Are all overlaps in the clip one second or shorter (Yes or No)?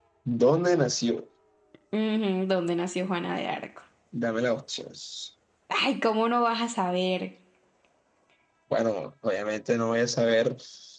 Yes